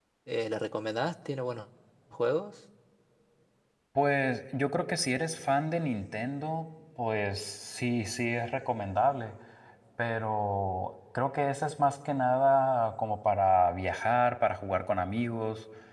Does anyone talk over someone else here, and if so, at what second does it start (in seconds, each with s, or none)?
none